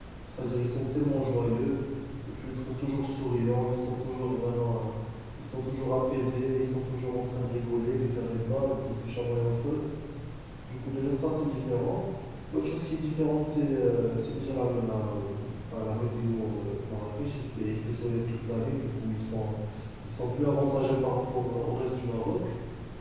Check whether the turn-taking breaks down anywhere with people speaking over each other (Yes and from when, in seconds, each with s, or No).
No